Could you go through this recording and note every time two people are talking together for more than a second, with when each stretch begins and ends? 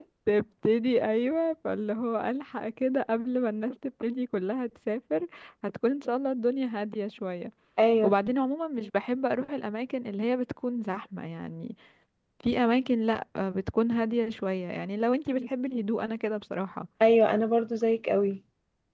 none

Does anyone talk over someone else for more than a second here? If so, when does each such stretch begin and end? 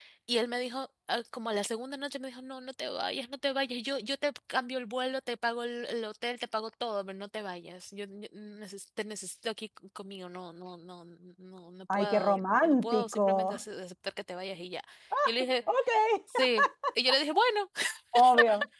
11.9-13.5

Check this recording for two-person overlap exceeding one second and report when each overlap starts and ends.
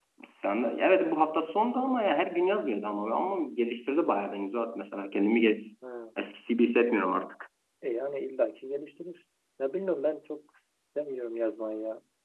none

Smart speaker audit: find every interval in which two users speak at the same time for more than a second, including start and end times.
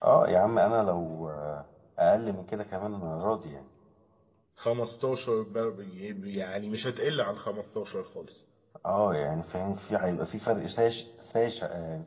none

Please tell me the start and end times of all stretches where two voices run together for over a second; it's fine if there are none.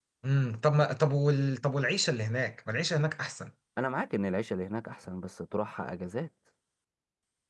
none

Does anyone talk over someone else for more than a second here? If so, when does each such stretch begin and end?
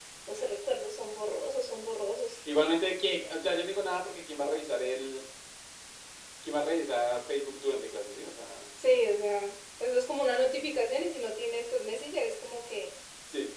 none

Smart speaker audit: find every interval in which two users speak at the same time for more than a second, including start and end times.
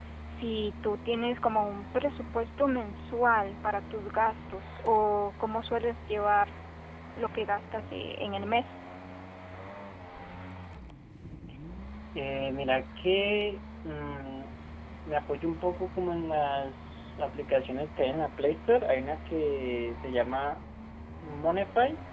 none

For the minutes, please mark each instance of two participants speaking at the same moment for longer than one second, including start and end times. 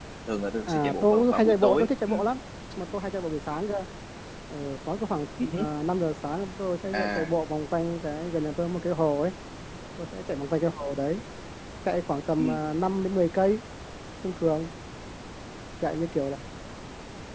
0.7-2.1

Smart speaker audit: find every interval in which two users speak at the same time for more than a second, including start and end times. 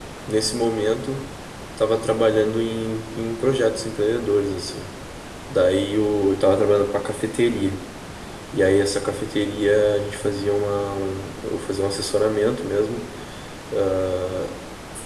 none

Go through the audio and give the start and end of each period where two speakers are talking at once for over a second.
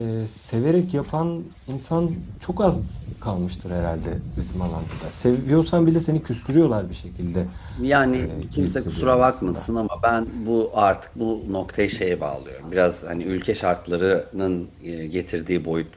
8.2-9.7

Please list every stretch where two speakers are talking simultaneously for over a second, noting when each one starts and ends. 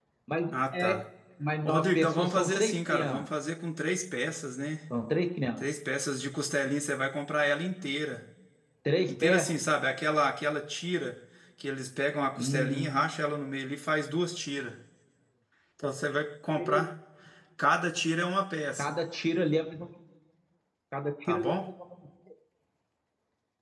1.6-3.2

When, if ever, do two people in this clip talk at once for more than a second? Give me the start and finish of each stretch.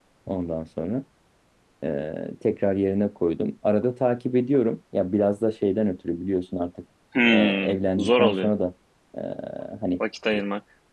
7.3-8.5

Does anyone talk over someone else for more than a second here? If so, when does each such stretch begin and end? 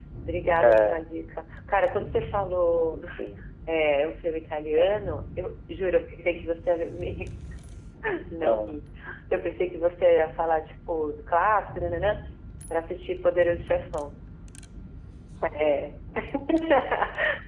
none

